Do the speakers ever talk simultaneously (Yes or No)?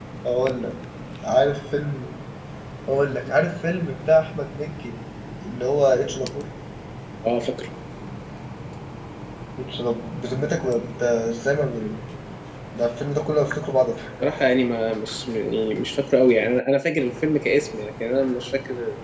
No